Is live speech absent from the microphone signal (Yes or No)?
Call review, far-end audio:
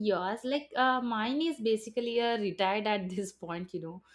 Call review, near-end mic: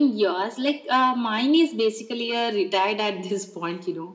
Yes